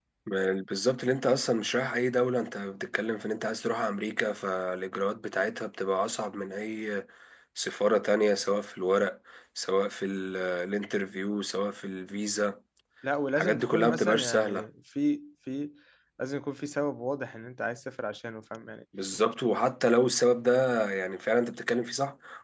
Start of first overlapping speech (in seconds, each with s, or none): 13.4 s